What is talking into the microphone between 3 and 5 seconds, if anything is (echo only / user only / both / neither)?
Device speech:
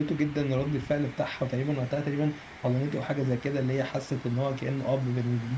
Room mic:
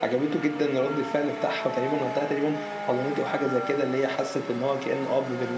echo only